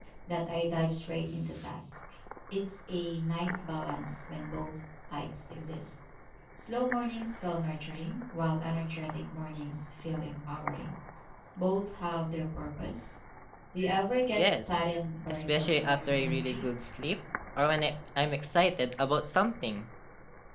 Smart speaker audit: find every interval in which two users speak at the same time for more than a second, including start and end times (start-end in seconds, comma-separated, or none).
15.3-16.7